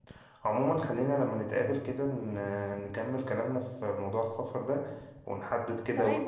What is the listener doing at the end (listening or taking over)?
taking over